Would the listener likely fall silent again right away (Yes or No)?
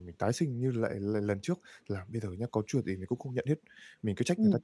Yes